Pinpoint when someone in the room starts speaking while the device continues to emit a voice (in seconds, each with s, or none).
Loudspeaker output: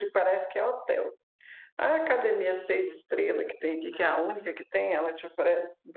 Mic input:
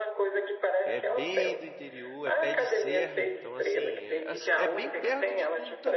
0.8 s